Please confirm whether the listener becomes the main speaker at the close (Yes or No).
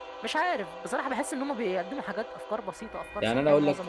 Yes